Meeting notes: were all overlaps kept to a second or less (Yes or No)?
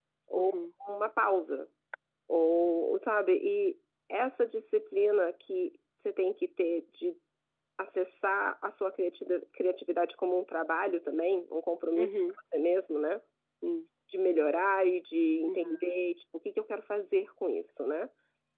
Yes